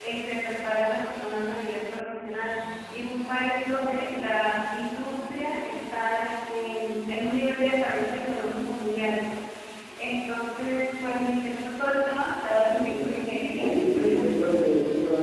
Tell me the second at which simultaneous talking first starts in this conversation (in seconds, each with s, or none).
12.5 s